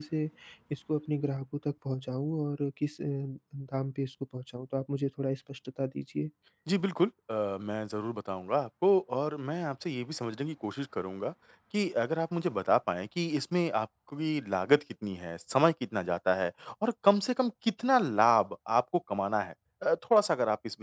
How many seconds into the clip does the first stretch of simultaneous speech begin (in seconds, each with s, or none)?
none